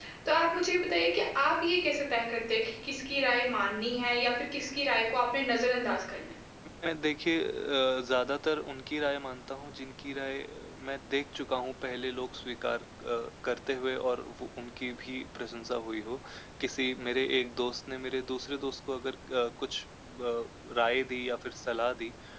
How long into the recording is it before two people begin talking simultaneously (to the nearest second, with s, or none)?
none